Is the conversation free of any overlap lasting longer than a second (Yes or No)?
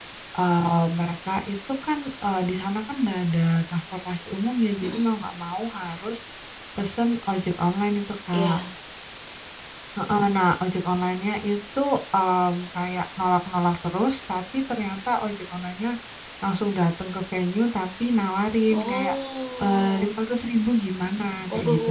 Yes